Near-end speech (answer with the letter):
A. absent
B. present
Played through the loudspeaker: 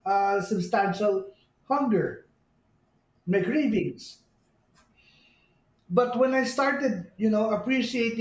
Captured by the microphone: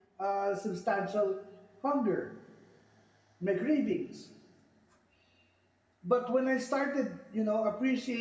A